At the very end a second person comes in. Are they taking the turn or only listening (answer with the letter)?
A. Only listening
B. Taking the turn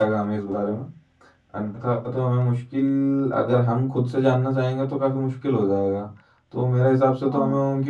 A